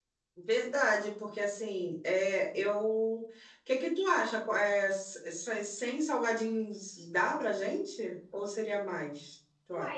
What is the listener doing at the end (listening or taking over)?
taking over